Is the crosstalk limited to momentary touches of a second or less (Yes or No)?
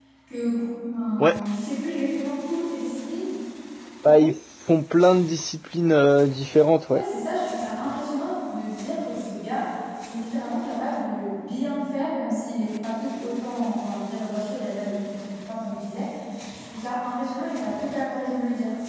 Yes